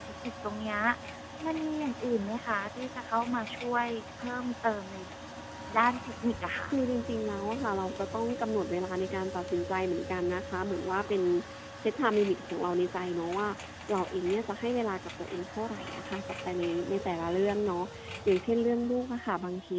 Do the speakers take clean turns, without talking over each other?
Yes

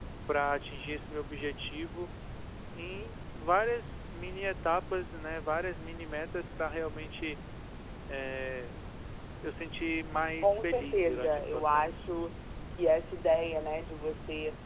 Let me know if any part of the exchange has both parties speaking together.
Yes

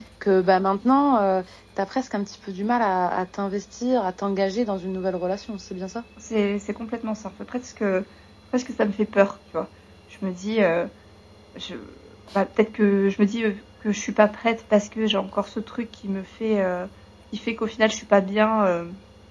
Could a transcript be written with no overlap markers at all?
Yes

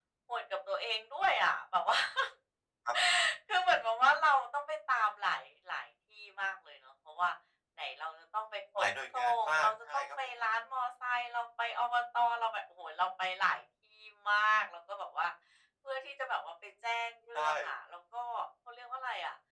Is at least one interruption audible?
Yes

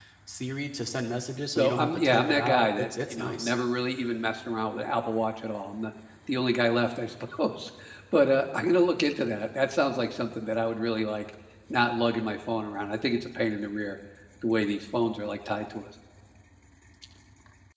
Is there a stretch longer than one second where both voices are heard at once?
Yes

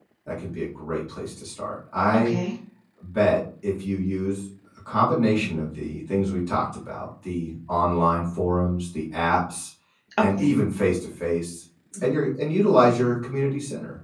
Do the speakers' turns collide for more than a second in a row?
No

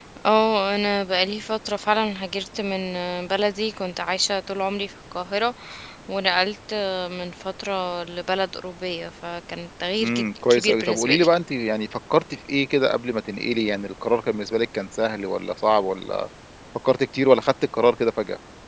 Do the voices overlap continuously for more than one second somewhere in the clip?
Yes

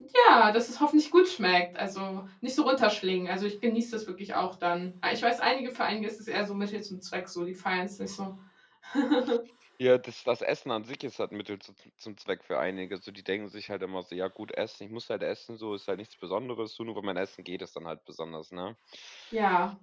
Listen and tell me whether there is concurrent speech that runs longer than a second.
No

